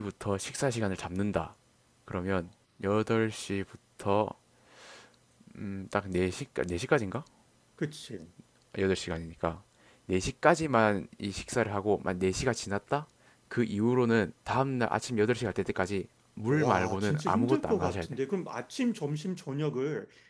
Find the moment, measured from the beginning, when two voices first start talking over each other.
16 s

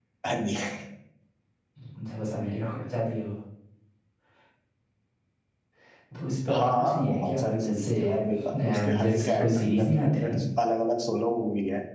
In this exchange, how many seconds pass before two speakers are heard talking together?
6 s

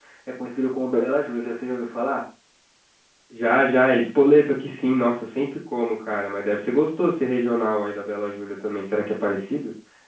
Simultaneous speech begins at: none

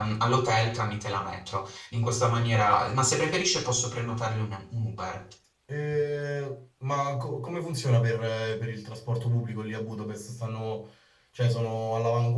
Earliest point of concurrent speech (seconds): none

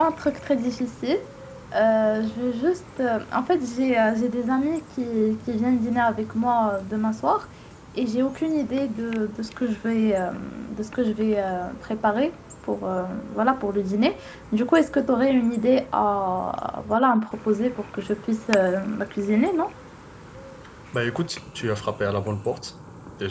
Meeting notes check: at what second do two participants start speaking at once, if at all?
none

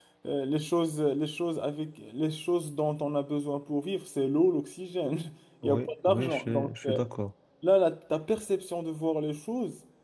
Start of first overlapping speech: 6 s

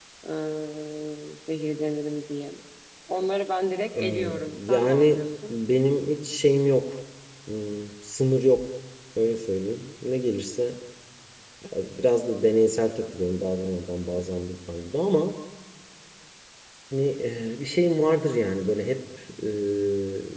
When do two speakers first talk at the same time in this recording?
4 s

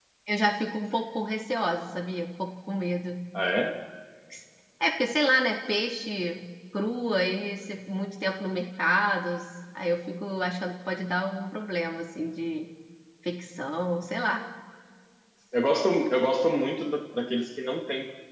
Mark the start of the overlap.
none

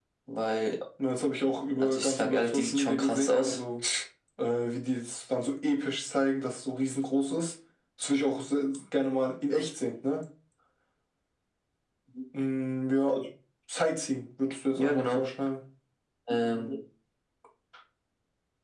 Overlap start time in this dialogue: 2 s

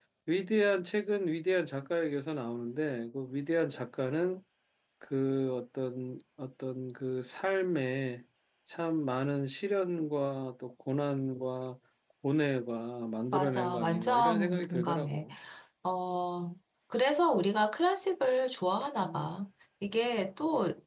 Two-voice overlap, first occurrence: 13 s

